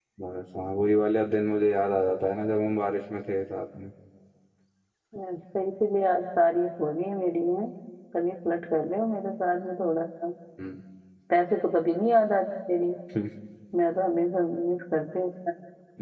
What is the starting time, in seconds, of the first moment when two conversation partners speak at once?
none

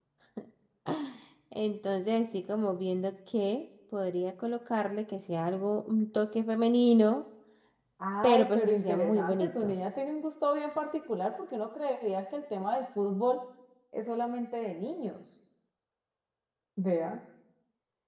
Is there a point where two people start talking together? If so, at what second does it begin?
8.2 s

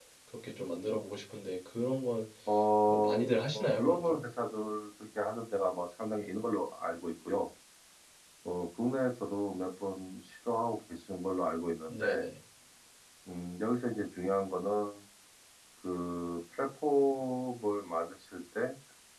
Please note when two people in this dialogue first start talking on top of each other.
2.9 s

